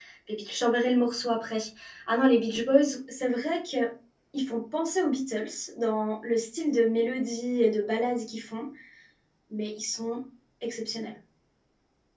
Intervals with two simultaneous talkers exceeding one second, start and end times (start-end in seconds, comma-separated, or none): none